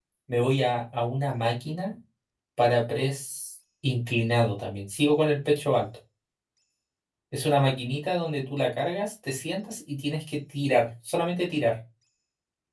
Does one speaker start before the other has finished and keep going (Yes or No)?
No